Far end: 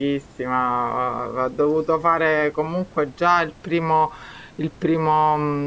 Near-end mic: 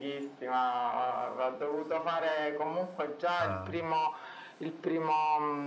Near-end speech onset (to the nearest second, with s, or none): 3 s